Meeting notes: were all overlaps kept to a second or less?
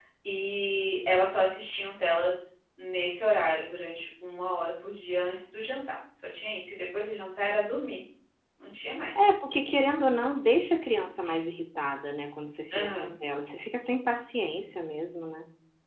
Yes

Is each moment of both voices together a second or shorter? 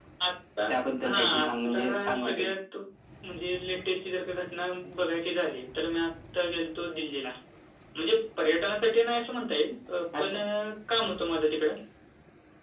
No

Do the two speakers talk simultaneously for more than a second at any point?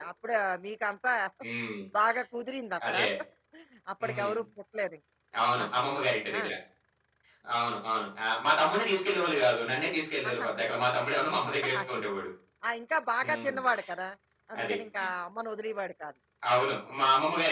No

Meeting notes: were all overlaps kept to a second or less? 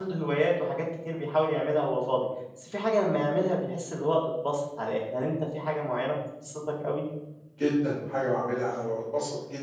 Yes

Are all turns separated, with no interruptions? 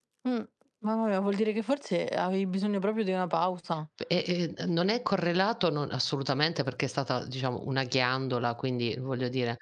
Yes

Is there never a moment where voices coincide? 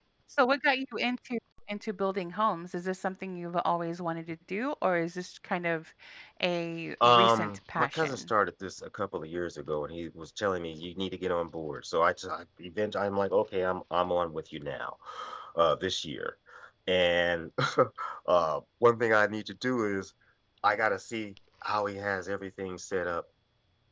No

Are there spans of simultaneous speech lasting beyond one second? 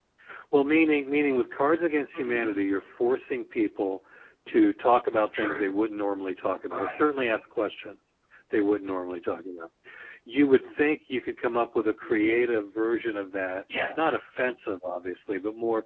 No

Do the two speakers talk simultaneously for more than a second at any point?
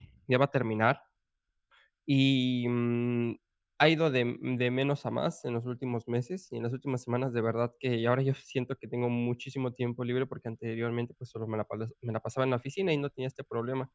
No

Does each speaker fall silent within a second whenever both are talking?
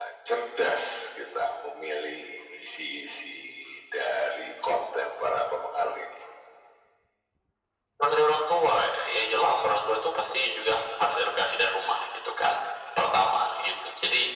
Yes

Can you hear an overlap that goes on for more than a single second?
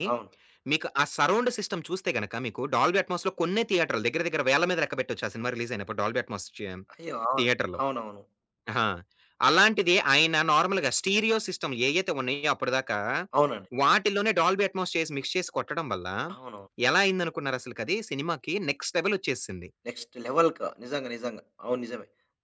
No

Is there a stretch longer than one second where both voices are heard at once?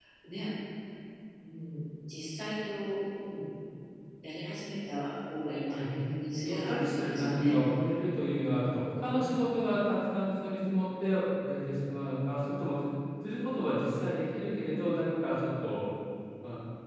Yes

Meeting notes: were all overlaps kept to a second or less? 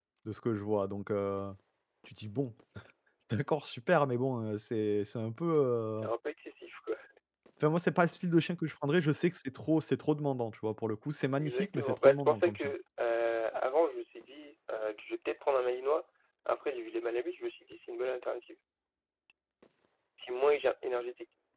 No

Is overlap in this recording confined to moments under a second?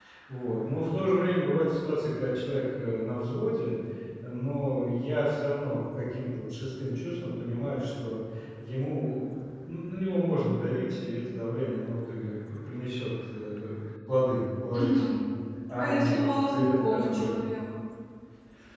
No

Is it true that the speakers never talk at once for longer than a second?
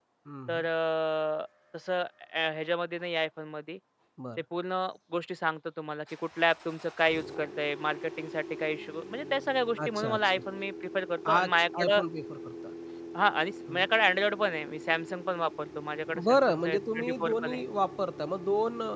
No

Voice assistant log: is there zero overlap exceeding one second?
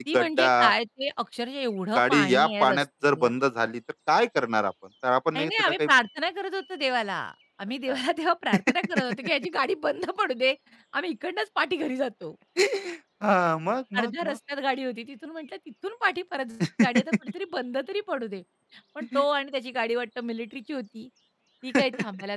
No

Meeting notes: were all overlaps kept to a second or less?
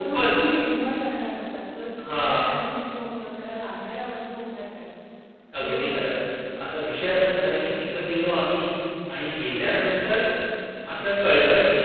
Yes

